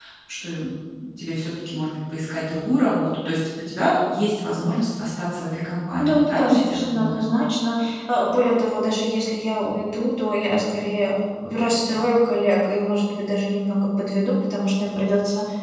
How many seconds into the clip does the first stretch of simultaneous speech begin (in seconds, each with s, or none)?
6.0 s